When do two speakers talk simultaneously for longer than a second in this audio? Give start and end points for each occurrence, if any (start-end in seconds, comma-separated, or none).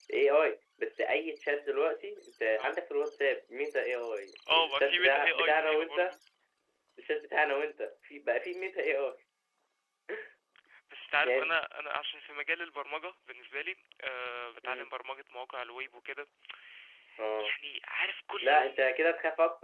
4.5-6.0